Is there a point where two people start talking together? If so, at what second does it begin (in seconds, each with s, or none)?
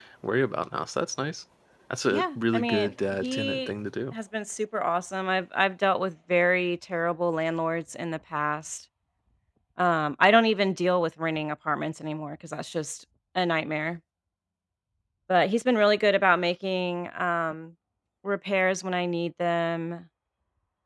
2.1 s